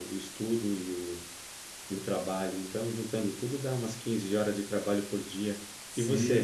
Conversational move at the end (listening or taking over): taking over